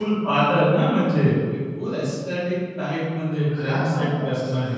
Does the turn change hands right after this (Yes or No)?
Yes